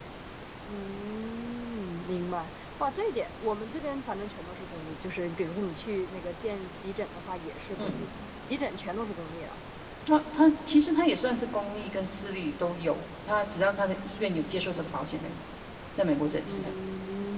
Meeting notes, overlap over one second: none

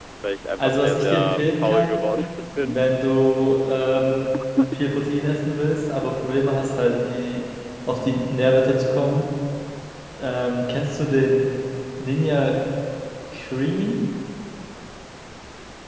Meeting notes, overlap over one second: present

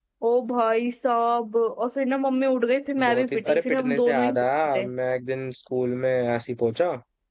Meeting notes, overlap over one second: present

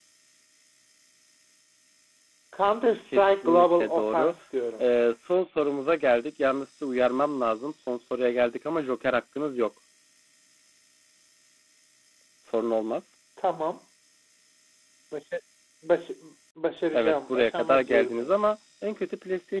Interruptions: present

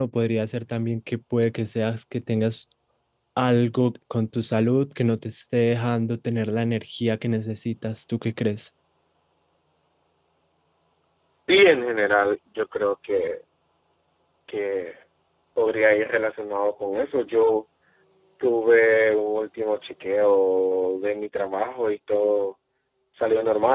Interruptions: none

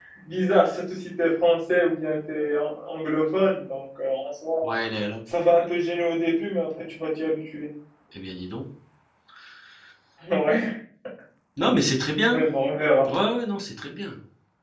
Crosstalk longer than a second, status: none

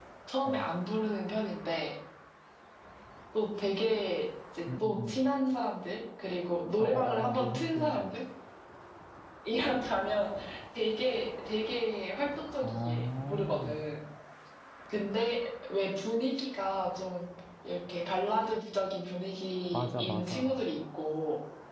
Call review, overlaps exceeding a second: present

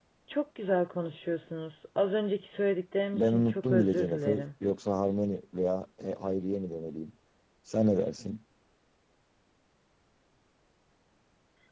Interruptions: present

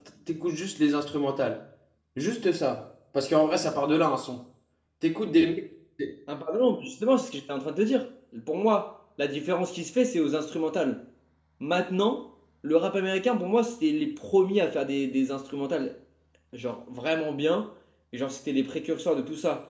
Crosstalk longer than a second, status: none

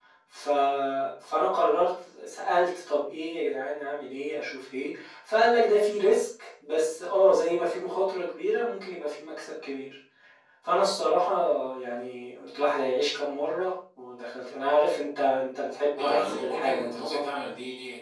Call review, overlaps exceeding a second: present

